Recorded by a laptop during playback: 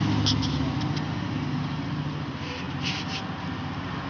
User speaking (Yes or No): No